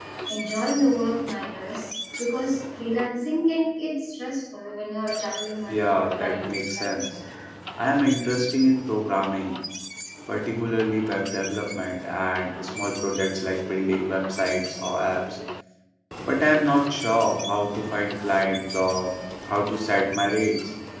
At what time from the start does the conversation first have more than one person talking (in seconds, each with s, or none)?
5.7 s